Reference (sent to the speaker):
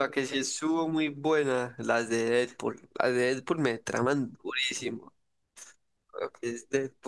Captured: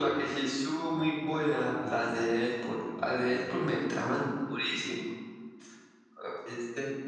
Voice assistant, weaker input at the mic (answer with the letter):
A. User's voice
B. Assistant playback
A